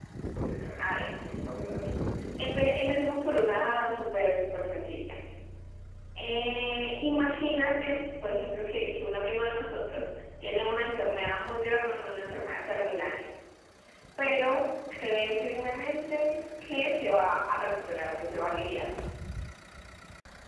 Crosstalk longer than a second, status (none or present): none